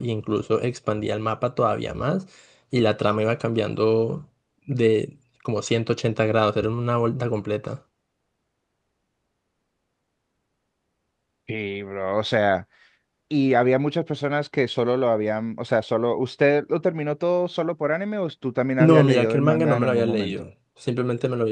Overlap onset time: 18.8 s

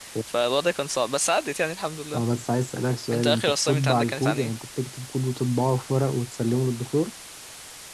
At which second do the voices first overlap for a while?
3.1 s

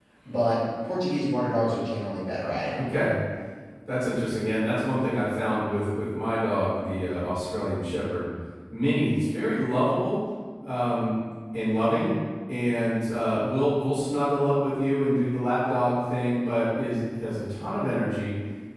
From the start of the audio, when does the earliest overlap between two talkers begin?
none

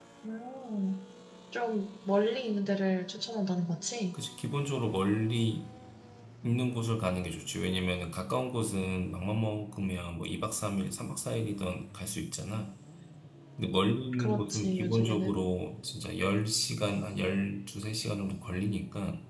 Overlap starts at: 14.2 s

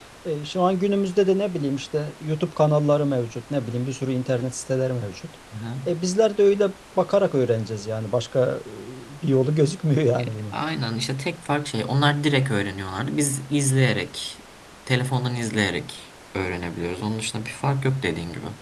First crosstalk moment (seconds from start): none

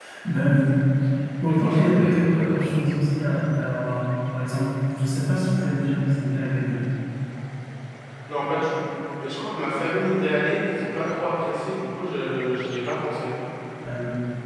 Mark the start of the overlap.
1.4 s

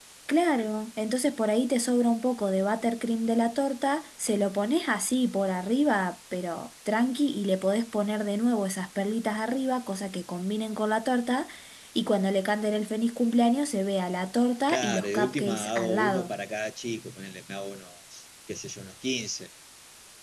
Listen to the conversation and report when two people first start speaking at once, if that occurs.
14.7 s

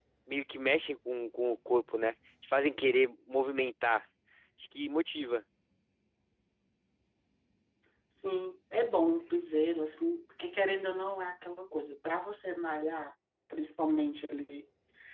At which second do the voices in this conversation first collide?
none

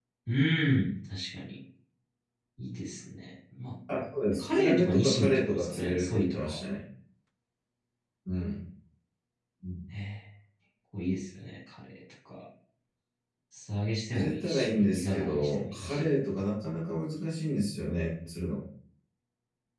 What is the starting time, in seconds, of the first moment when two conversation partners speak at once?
4.3 s

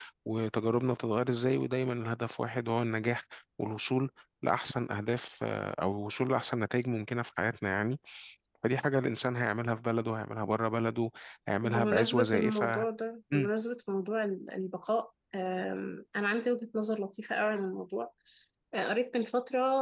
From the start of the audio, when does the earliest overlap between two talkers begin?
11.6 s

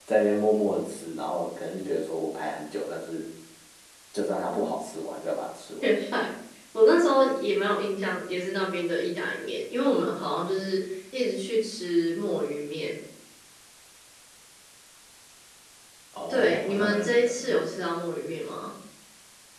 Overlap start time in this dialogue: 16.3 s

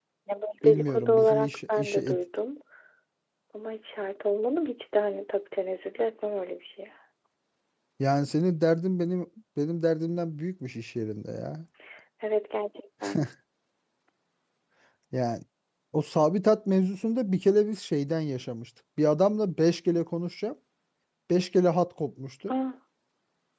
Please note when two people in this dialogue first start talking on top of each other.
0.6 s

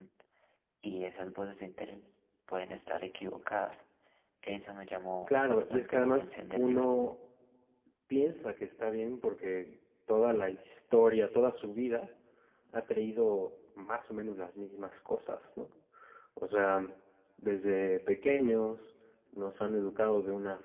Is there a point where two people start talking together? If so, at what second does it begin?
5.3 s

